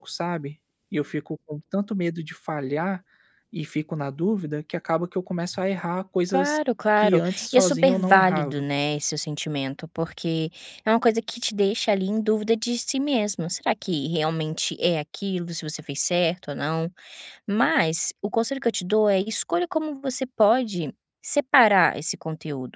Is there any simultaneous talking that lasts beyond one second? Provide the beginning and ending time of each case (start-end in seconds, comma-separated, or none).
7.0-8.6